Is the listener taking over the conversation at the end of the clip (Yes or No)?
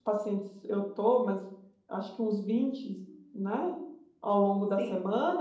No